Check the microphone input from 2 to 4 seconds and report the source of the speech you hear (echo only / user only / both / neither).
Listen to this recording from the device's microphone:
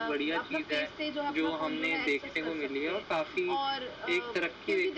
echo only